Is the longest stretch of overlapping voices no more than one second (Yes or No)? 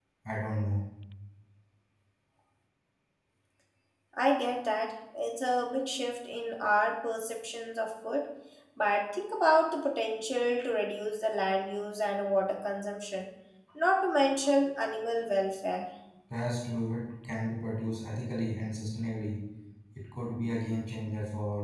Yes